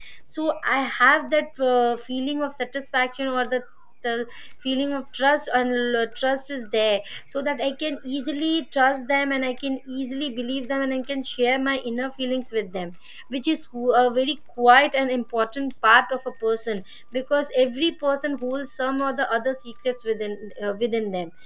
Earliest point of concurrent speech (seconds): none

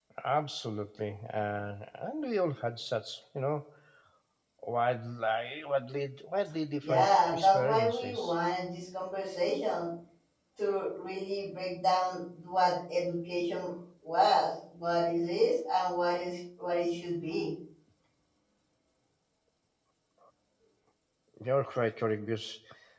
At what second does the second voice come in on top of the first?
6.8 s

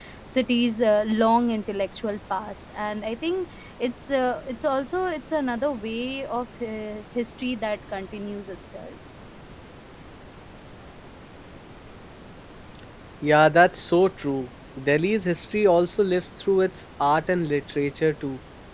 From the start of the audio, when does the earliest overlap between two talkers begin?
none

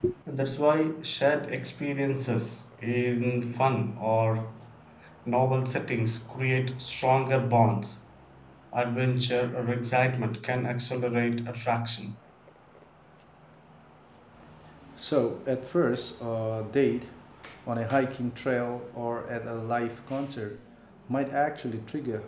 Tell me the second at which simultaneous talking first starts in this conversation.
none

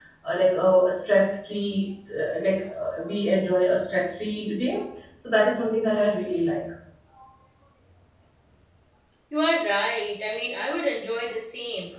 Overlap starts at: none

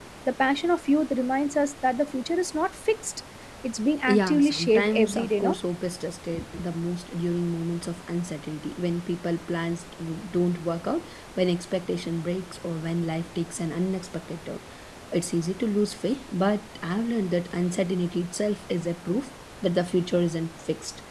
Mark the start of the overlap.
4.1 s

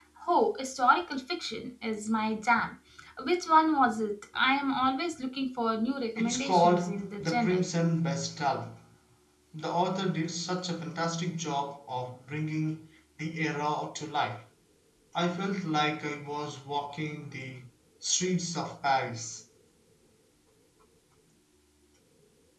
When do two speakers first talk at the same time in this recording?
6.2 s

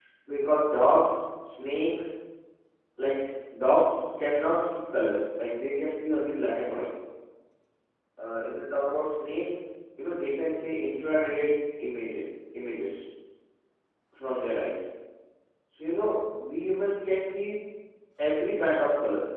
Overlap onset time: none

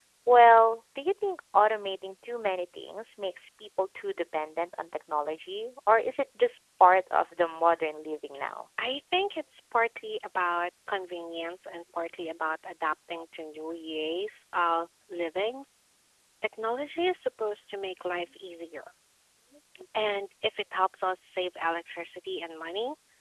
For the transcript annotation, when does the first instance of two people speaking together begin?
none

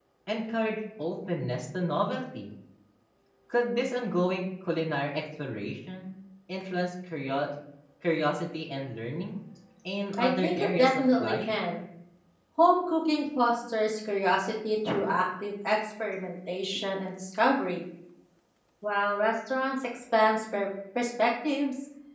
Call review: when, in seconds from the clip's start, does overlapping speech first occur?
10.2 s

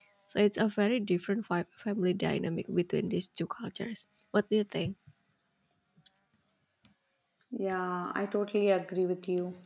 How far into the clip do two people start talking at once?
none

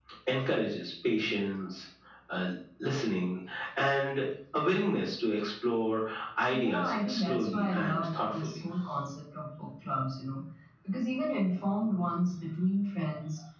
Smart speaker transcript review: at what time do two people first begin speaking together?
6.5 s

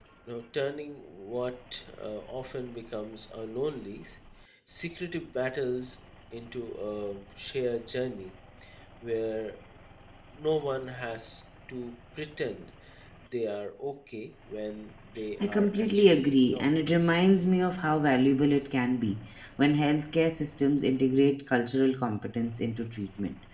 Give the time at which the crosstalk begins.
15.4 s

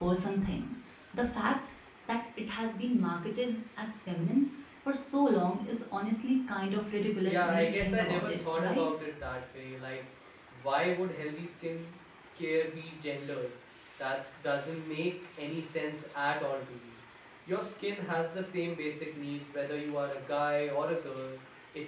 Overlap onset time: 7.3 s

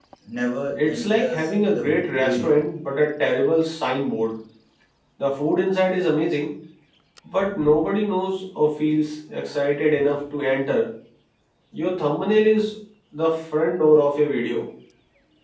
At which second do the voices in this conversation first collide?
0.8 s

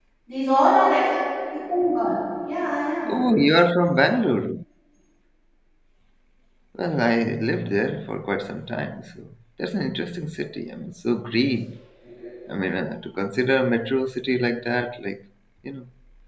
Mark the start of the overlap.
none

